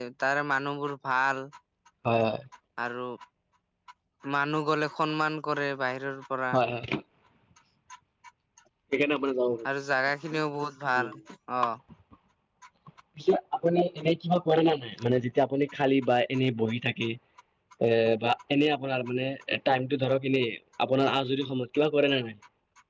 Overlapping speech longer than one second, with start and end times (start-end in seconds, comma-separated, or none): none